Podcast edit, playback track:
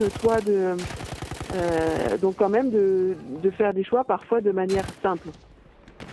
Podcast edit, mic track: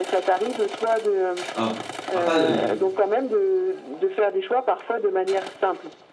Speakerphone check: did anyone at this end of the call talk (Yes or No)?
Yes